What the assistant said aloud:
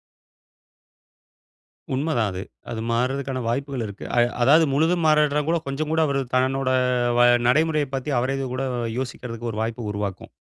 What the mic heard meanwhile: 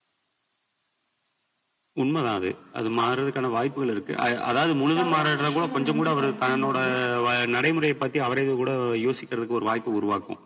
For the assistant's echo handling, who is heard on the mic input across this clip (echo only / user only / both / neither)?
both